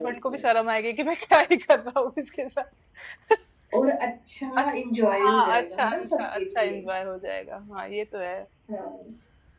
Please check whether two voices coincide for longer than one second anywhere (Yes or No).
Yes